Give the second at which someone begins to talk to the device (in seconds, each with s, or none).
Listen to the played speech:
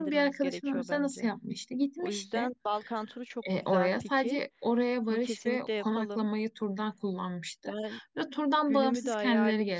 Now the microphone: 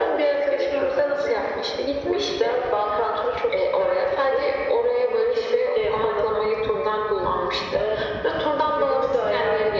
none